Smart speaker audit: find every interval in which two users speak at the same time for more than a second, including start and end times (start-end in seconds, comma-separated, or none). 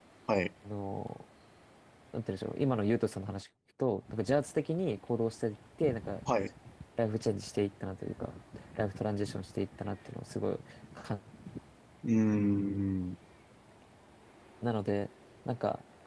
none